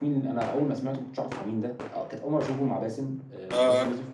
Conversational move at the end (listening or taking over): listening